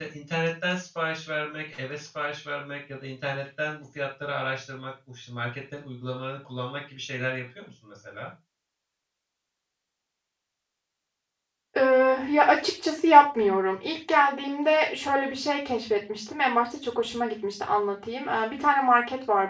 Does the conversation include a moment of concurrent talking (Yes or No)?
No